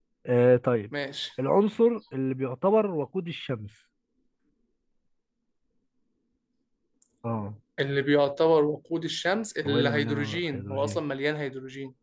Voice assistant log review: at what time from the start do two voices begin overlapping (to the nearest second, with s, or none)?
10 s